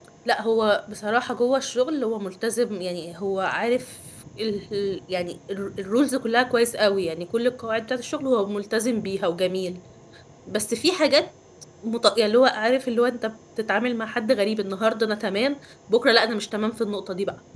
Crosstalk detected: No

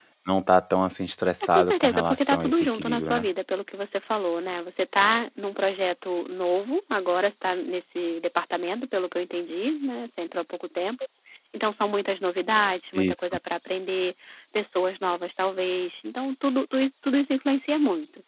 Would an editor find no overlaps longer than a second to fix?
No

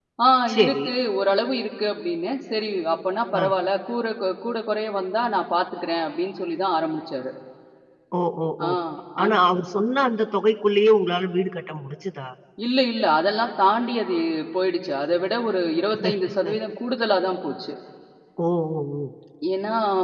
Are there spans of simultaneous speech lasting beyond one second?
No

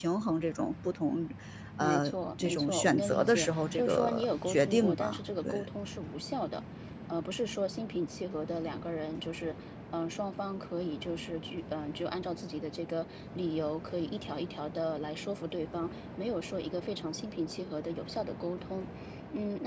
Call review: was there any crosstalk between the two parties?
Yes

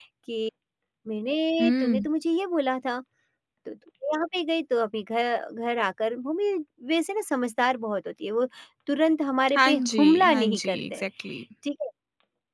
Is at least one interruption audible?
Yes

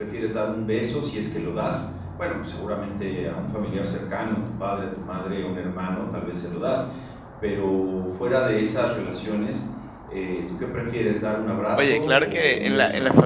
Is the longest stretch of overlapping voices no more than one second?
No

